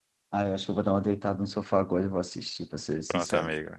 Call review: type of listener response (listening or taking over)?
taking over